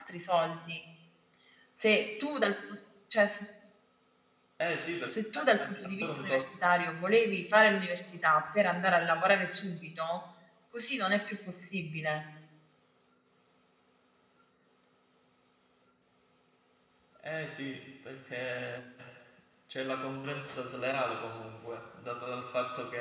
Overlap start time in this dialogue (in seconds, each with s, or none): 5.1 s